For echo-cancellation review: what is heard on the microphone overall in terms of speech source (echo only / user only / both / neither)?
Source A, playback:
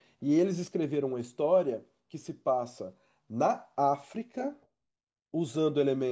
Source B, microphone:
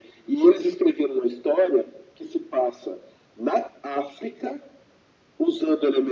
echo only